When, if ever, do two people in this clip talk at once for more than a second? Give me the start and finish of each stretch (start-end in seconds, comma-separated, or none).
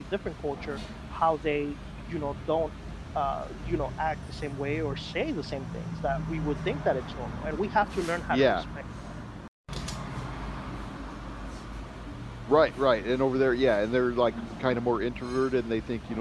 none